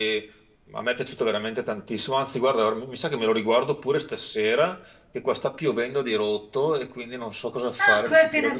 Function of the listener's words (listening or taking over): taking over